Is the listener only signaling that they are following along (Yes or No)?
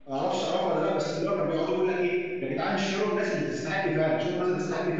Yes